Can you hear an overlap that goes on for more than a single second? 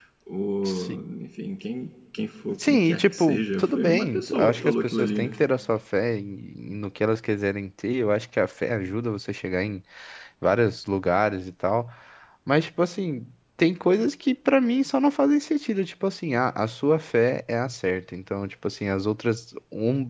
Yes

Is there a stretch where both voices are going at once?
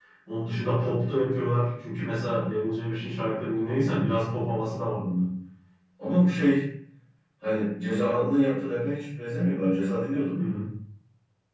No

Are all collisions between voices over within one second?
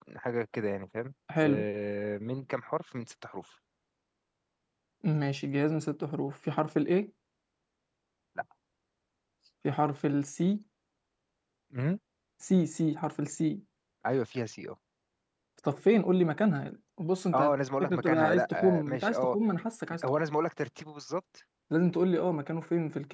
No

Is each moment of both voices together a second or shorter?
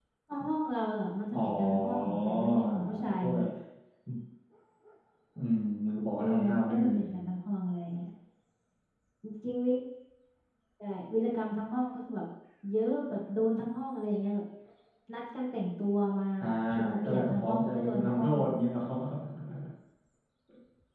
No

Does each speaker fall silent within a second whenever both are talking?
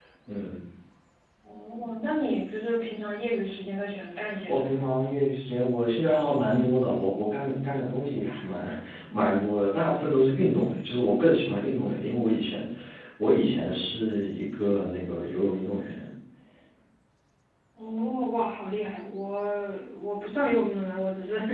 Yes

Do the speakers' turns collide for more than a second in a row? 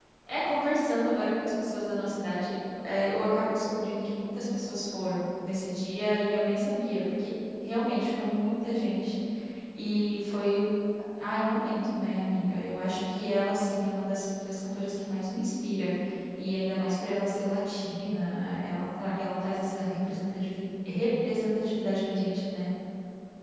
No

